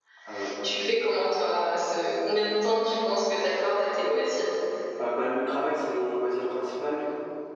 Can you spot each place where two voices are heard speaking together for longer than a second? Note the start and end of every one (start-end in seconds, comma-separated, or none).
none